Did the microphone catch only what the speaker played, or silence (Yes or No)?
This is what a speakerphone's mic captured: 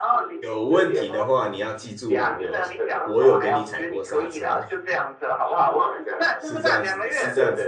No